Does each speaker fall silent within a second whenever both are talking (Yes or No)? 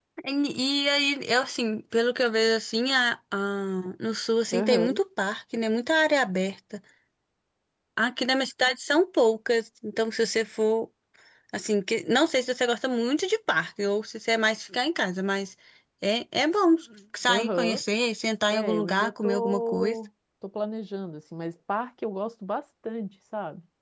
No